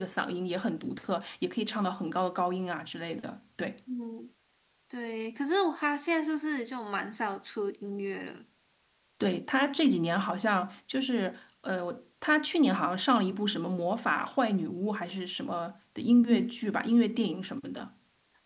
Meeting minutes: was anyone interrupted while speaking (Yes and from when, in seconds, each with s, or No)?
No